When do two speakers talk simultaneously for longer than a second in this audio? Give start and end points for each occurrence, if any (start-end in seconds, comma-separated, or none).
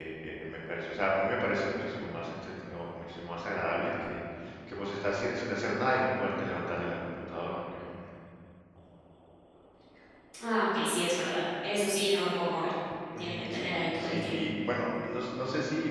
13.2-14.4